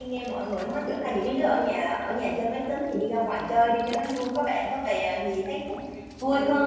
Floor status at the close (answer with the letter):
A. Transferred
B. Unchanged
B